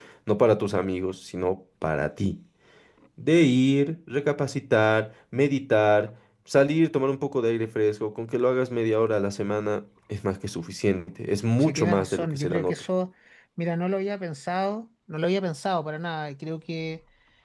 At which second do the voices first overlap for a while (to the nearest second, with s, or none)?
12 s